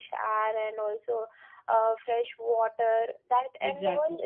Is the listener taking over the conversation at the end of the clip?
No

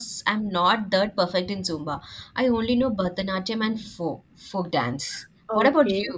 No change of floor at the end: No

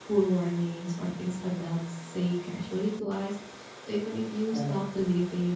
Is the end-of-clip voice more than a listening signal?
No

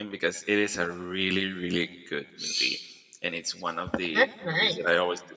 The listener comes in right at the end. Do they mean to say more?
No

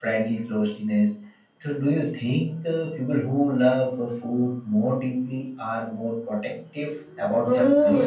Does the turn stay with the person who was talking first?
No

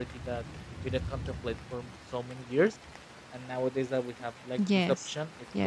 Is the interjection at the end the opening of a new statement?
Yes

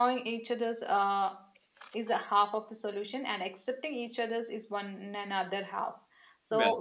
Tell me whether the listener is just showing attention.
Yes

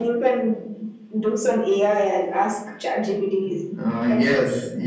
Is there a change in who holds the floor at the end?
Yes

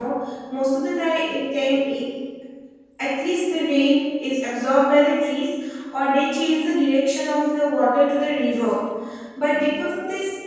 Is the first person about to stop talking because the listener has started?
No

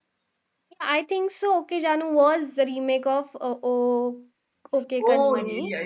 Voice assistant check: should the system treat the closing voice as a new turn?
Yes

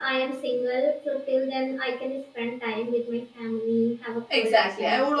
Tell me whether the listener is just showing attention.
No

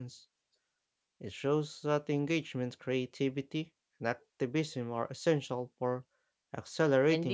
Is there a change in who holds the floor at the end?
Yes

